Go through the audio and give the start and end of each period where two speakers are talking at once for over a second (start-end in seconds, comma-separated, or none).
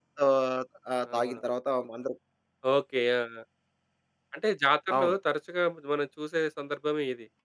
none